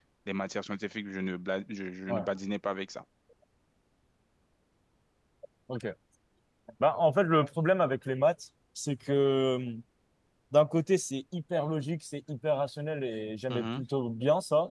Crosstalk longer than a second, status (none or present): none